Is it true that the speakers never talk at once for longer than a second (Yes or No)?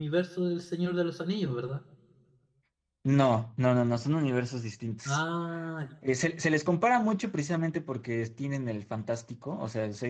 Yes